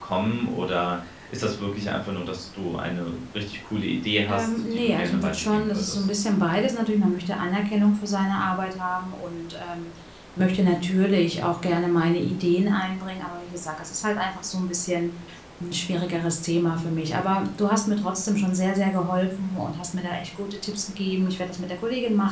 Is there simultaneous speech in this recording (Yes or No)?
Yes